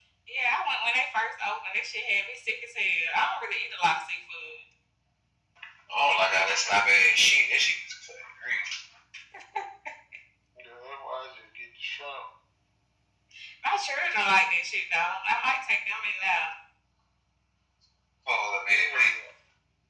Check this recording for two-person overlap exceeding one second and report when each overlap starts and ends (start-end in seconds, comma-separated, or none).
6.0-7.2